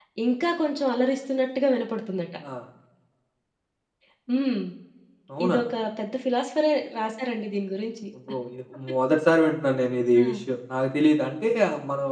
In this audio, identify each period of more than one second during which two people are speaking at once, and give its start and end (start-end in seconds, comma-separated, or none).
none